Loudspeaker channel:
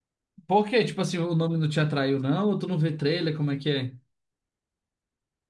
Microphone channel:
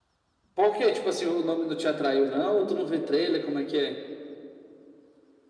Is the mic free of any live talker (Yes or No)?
Yes